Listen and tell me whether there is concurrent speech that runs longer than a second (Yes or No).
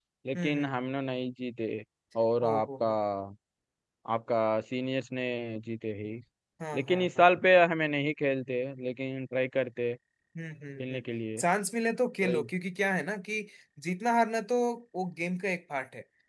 No